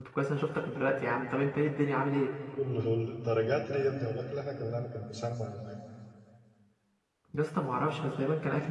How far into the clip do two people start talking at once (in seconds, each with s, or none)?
none